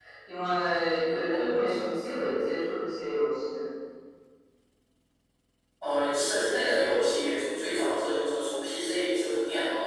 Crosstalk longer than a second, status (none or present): none